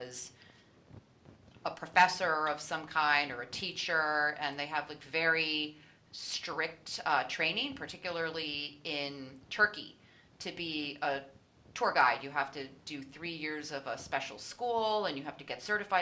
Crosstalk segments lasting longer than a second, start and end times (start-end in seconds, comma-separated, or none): none